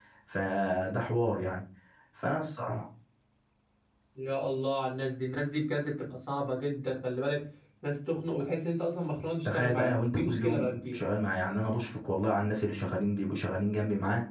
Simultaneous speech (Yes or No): Yes